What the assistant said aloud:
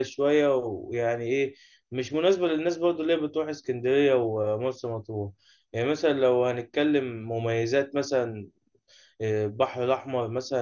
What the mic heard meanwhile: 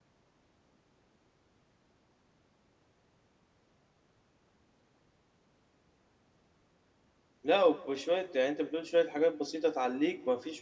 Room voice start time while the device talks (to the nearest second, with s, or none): 7 s